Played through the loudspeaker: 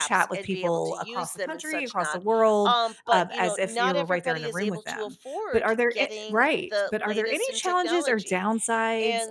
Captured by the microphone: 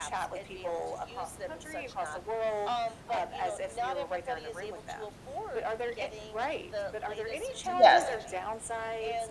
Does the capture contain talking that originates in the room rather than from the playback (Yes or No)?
Yes